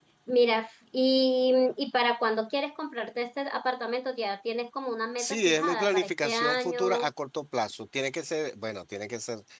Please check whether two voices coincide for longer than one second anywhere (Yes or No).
Yes